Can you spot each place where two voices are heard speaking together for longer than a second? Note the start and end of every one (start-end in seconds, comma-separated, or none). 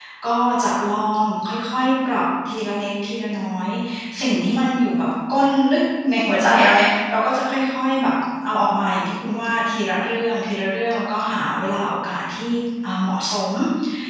none